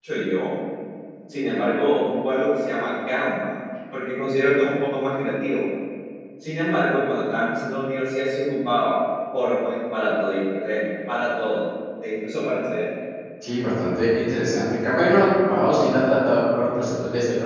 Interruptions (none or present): none